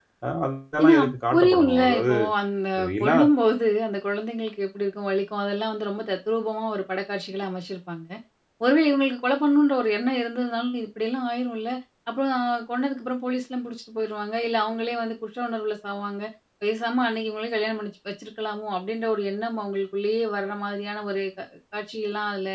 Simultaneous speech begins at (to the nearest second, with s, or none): 1 s